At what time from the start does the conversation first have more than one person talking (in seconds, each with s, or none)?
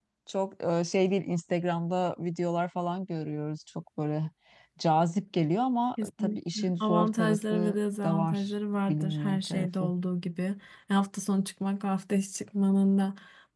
6.0 s